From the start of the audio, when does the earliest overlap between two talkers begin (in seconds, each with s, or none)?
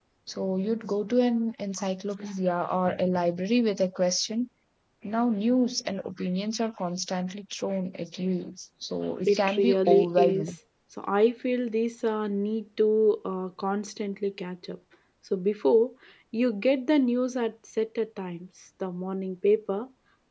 9.3 s